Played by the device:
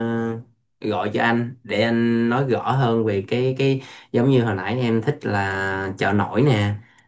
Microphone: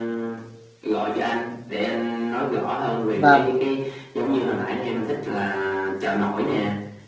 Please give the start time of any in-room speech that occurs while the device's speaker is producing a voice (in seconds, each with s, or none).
3.1 s